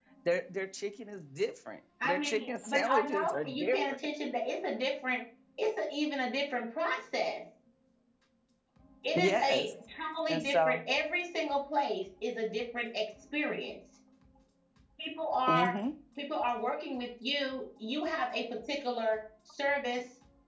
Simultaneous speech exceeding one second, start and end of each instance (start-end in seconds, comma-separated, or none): 2.0-4.0